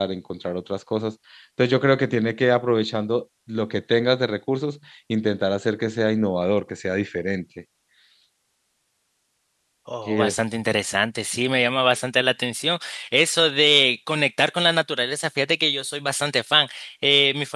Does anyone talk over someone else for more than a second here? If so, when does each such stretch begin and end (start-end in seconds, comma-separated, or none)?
none